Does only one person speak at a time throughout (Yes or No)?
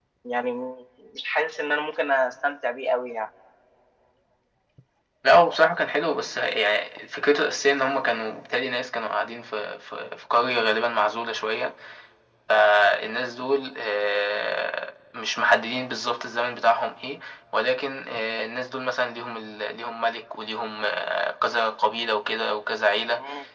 Yes